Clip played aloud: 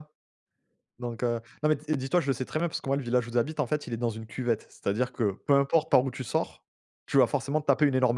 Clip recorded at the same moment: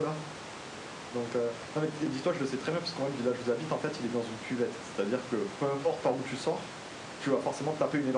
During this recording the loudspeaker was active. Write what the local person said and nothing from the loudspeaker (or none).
none